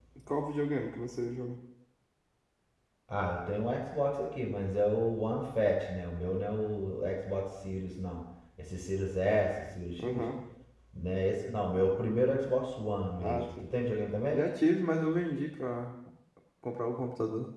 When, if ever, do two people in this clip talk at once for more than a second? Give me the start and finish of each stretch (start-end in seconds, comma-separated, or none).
none